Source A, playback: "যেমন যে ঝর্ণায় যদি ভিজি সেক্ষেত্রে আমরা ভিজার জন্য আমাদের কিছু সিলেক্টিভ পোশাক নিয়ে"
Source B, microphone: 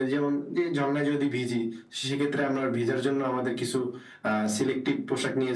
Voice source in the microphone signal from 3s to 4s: echo only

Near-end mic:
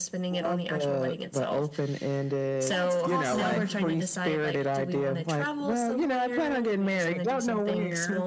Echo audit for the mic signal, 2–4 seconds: both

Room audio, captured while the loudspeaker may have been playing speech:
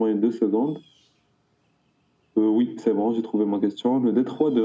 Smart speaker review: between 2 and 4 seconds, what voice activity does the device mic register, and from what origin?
echo only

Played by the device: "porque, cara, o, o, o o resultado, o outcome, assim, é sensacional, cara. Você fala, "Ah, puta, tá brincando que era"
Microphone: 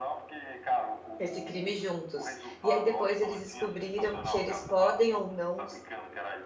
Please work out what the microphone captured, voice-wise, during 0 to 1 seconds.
echo only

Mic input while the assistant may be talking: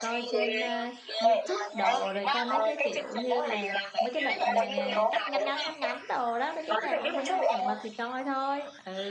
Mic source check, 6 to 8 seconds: both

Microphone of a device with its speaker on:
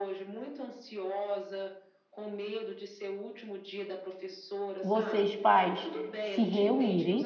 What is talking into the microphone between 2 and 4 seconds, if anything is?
echo only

